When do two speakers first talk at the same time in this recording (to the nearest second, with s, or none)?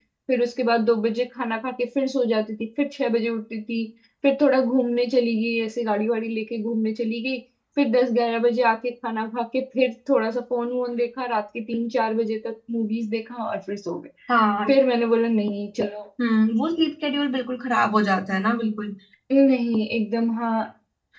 none